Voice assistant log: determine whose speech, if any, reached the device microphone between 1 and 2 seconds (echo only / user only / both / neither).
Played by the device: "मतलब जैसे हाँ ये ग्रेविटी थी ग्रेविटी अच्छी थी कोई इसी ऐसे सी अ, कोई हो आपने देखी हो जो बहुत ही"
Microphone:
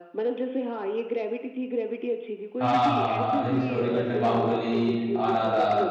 echo only